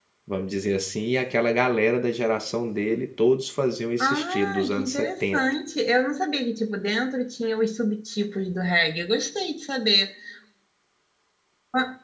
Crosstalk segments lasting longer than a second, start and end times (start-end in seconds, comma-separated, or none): 4.0-5.4